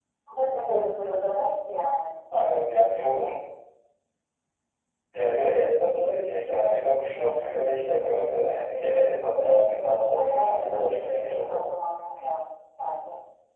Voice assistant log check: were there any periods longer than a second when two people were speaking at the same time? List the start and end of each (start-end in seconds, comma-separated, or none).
9.4-11.7